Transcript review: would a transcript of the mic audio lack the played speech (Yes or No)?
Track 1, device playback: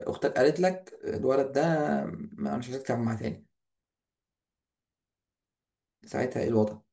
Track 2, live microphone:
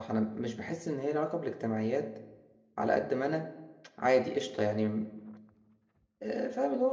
Yes